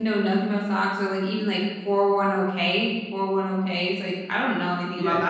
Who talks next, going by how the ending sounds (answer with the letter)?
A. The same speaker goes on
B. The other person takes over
B